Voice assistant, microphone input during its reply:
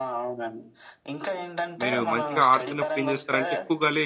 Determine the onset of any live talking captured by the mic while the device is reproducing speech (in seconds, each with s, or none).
1.8 s